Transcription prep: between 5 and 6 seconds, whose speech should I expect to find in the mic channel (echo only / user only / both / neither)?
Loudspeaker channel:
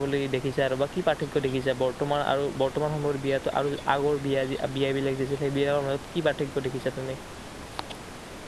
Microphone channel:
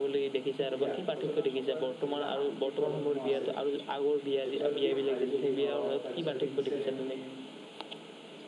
both